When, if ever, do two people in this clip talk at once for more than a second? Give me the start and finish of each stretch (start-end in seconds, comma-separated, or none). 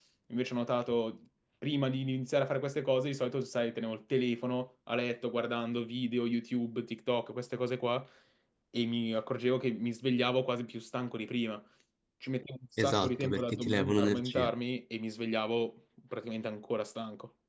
12.8-14.5